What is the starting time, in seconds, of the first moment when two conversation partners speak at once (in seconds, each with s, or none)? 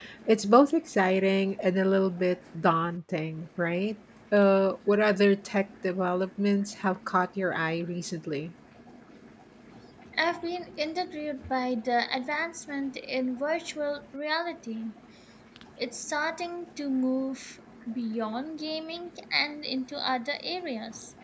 none